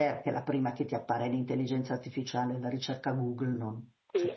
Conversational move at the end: taking over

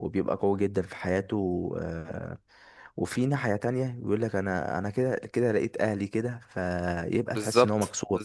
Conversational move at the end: taking over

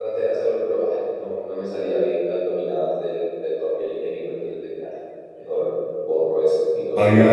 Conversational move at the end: taking over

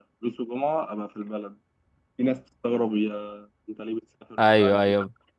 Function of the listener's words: taking over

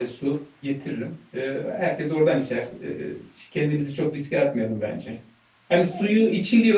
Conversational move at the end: listening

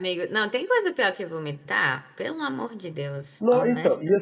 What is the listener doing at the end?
taking over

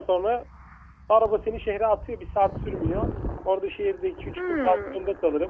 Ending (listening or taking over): listening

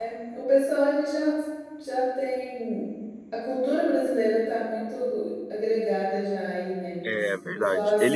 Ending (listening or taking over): taking over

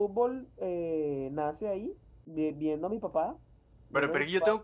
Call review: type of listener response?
taking over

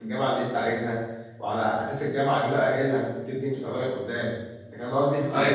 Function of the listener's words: listening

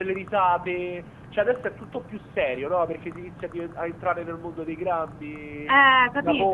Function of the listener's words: taking over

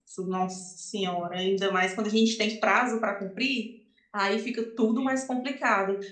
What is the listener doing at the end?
listening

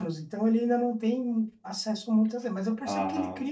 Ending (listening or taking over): listening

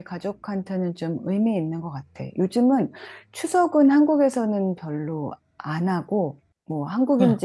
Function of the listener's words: listening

